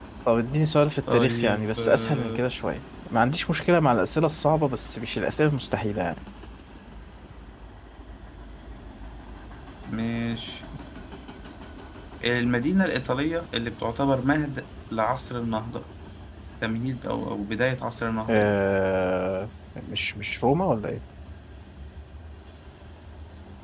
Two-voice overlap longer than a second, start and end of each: 1.1-2.4

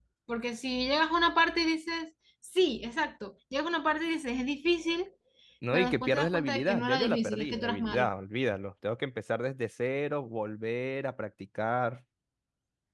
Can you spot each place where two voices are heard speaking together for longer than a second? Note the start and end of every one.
5.7-8.1

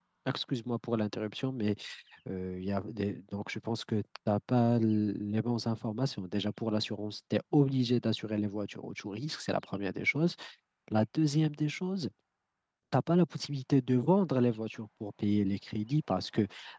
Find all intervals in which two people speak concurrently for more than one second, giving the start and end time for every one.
none

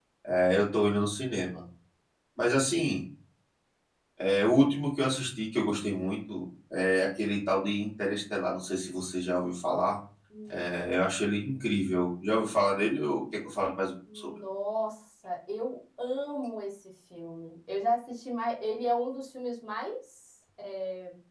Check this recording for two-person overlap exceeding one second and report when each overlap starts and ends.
none

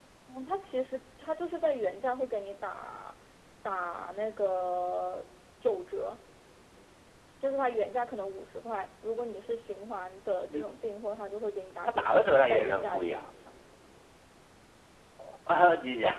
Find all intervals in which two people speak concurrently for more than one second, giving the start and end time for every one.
11.9-13.3

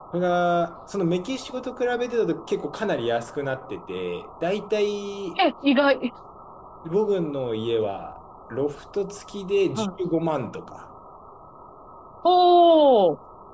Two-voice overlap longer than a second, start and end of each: none

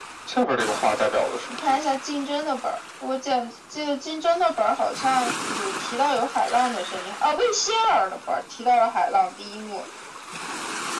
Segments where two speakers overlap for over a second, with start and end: none

